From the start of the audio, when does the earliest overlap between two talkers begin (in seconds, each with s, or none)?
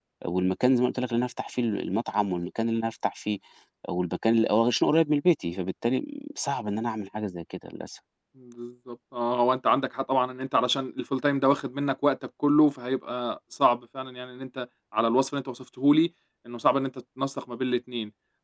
none